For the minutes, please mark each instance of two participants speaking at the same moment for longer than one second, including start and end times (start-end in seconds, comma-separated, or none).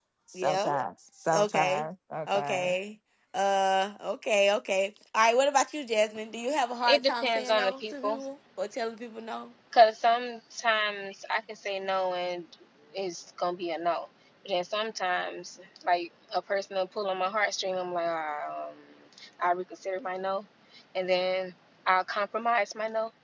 6.9-8.2